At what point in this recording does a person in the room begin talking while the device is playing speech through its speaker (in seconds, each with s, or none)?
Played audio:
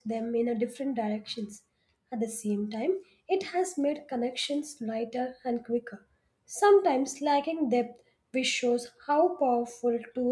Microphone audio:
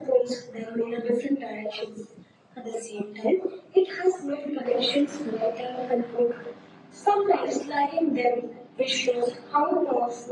none